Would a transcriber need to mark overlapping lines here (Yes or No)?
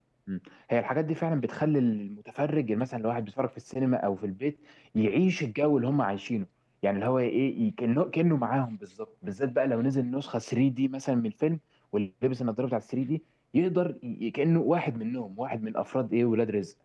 No